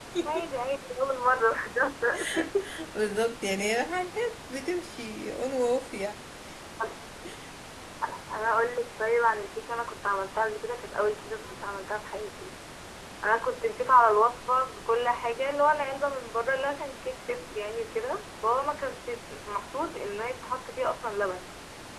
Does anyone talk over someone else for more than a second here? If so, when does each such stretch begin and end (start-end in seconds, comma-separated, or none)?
none